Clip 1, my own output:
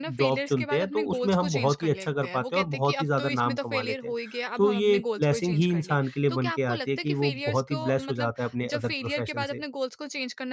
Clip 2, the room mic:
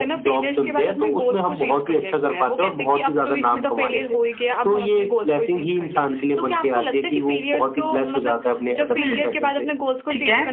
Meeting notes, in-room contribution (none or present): present